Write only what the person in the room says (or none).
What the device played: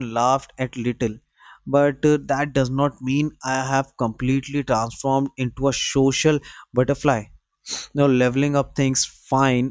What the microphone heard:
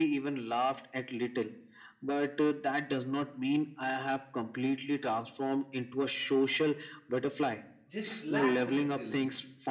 just relax a little.